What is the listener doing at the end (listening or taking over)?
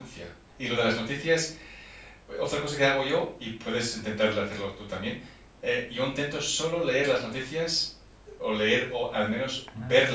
listening